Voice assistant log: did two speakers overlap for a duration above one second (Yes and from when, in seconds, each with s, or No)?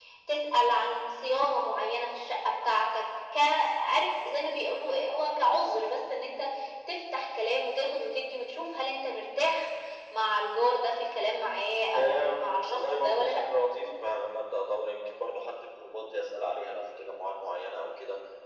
Yes, from 11.9 s